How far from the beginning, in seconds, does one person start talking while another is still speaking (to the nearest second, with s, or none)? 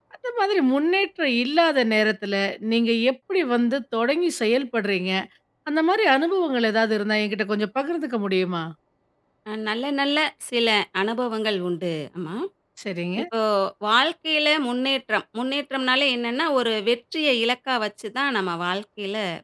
none